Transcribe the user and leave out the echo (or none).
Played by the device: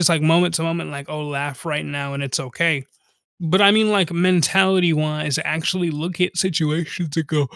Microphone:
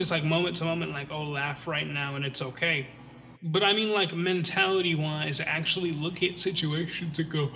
none